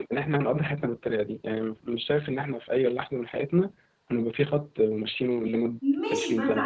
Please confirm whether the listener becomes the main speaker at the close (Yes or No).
Yes